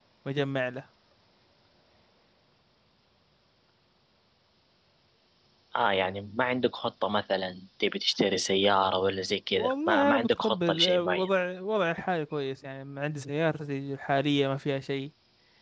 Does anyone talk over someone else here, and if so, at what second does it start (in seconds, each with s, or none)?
9.5 s